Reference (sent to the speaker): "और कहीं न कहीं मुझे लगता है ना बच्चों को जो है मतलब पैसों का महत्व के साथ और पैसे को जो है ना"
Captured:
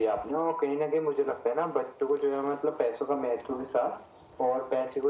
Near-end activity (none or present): none